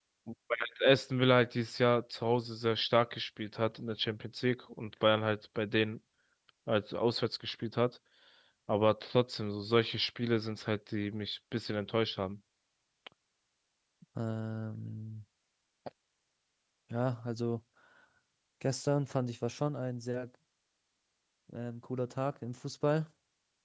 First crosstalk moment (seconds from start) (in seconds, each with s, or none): none